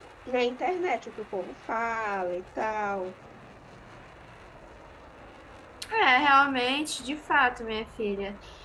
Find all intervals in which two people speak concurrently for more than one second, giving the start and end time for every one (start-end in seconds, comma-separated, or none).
none